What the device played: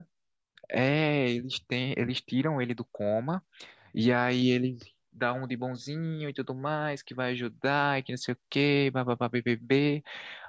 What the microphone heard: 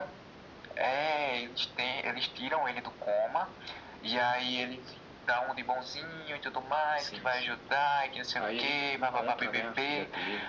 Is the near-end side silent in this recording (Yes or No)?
No